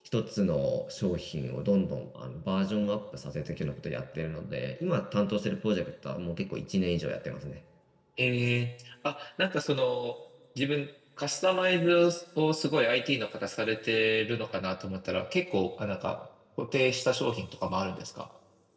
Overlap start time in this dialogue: none

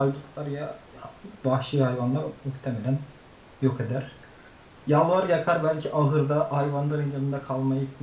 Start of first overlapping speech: none

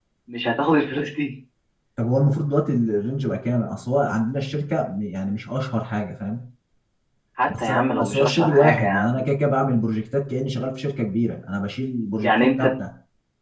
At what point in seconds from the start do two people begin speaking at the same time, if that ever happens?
7.6 s

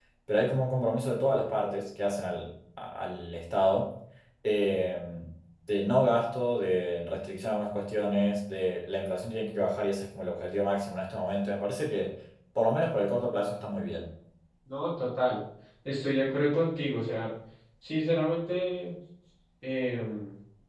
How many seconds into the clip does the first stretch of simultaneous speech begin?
none

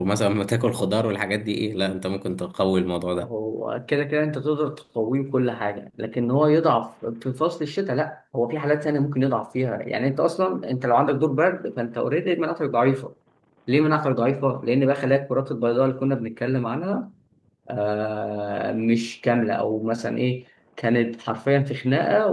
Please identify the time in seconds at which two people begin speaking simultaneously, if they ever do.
none

